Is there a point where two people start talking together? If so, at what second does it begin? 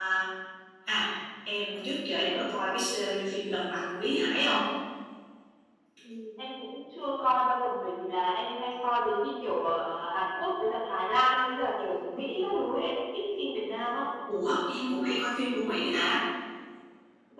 none

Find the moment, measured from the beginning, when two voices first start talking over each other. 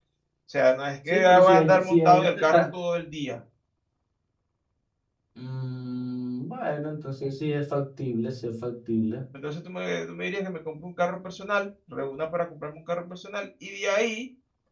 1.1 s

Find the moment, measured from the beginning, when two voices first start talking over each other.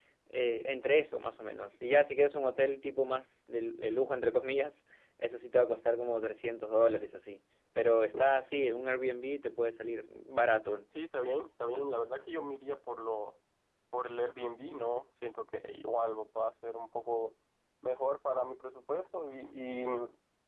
none

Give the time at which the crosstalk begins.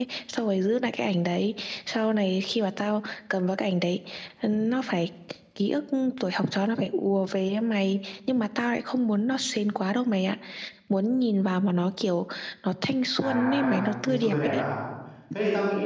13.2 s

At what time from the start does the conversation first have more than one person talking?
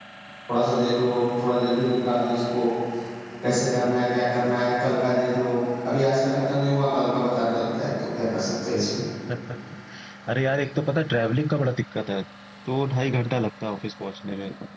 none

